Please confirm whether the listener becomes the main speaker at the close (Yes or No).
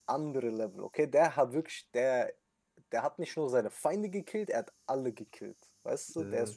No